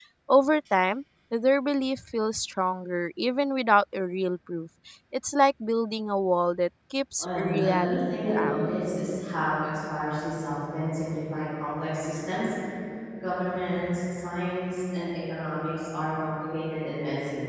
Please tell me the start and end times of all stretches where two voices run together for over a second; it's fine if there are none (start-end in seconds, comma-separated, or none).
7.2-8.6